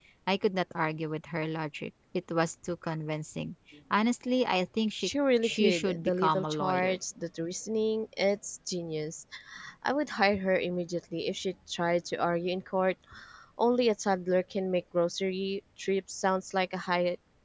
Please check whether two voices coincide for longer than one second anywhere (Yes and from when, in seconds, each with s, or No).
Yes, from 5.0 s